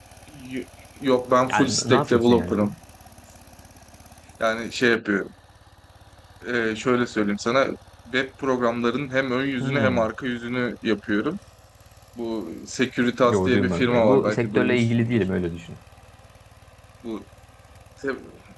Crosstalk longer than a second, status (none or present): present